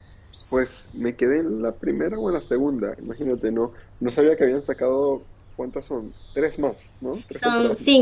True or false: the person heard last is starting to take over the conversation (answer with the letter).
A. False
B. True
B